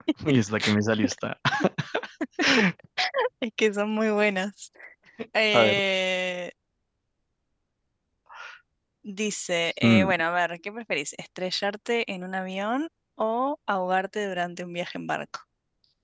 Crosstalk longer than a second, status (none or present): none